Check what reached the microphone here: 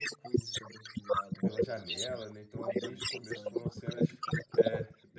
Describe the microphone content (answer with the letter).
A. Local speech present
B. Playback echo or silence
A